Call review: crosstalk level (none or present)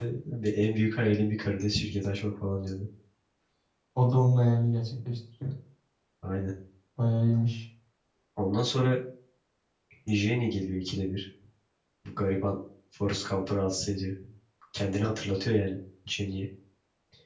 none